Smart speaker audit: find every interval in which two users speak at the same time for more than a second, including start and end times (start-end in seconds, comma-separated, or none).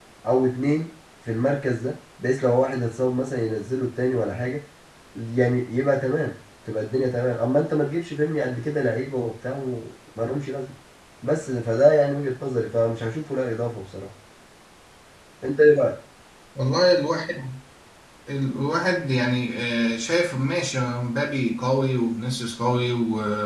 none